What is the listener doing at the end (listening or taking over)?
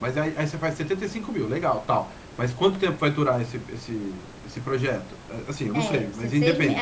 taking over